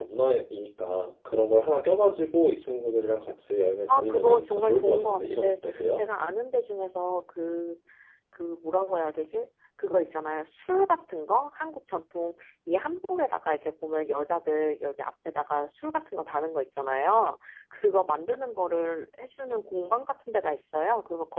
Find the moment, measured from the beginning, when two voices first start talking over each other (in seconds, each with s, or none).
3.9 s